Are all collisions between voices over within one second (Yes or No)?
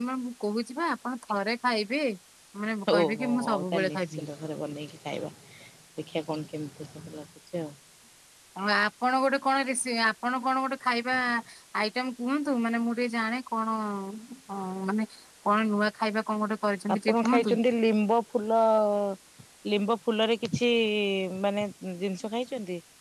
No